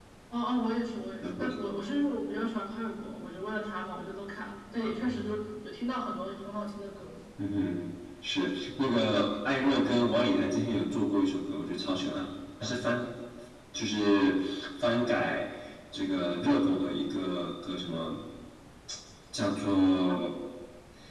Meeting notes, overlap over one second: none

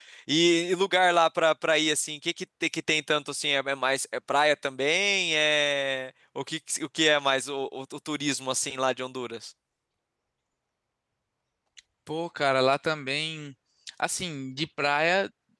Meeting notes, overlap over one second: none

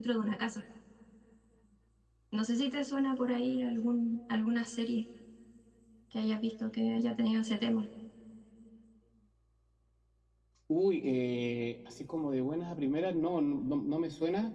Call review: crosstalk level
none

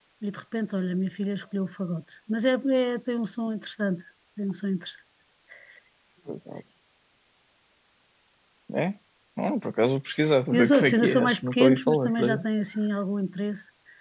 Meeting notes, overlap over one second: present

